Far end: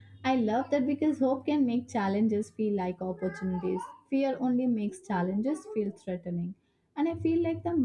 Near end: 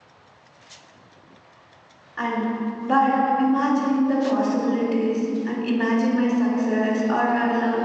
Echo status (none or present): none